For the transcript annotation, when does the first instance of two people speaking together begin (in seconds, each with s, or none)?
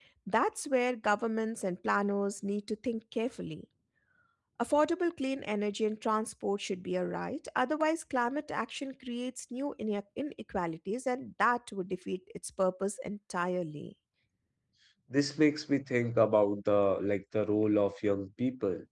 none